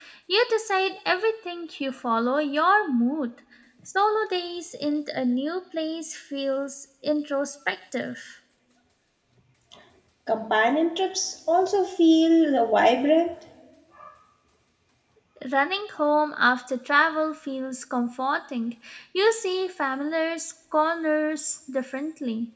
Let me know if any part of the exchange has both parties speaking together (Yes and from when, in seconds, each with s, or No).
No